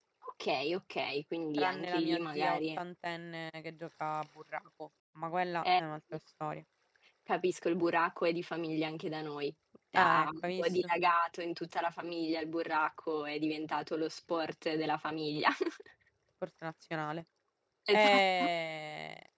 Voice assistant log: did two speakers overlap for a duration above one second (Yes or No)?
Yes